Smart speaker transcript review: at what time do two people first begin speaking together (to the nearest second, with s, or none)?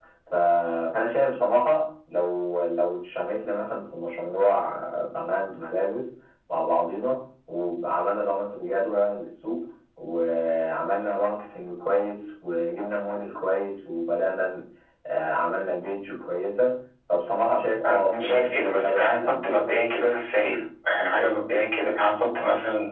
18 s